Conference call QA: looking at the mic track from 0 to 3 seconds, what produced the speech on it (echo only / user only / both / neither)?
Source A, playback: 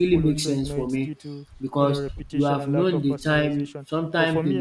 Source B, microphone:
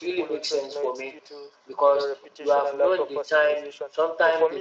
echo only